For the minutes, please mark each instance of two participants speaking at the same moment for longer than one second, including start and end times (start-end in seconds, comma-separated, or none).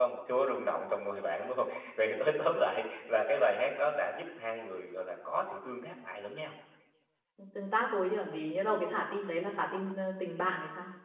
none